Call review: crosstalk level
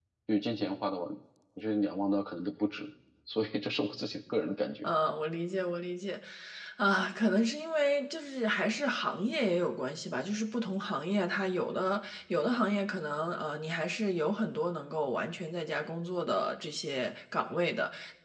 none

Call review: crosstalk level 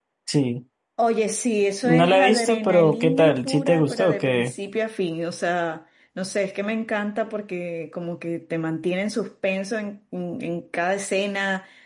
present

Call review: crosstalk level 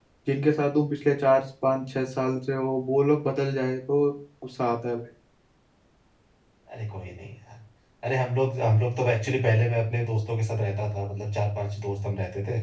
none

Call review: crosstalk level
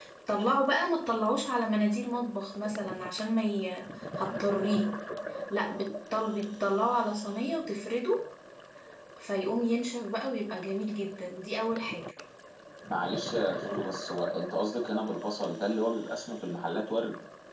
none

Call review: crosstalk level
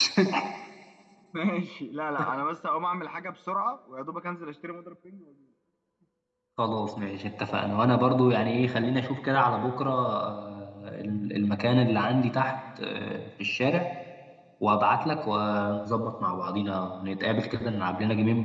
none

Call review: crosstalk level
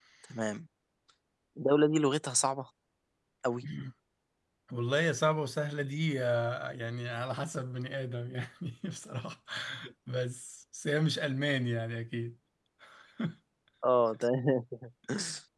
none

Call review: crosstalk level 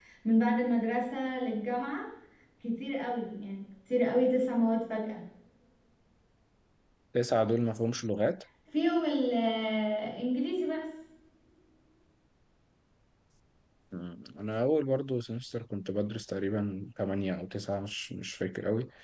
none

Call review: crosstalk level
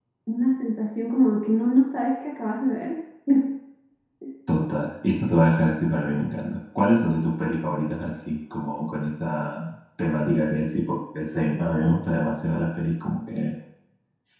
none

